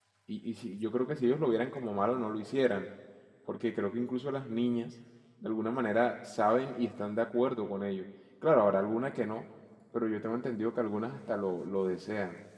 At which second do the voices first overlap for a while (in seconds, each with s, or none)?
none